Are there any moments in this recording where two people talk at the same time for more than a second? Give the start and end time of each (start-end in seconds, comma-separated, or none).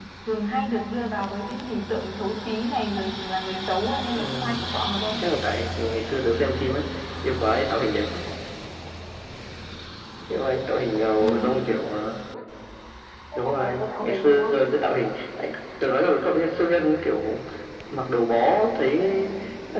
13.4-14.6